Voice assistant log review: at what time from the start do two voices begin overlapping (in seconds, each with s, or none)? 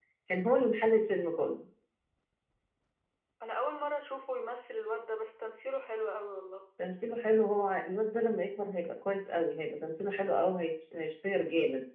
none